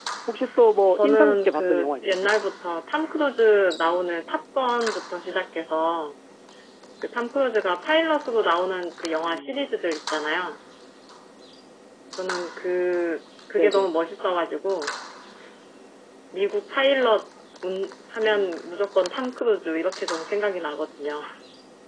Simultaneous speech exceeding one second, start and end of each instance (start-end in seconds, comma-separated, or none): 0.9-2.3